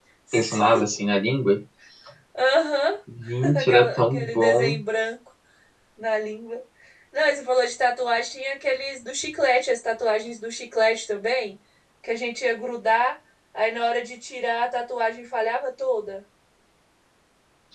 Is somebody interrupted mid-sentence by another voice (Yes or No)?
Yes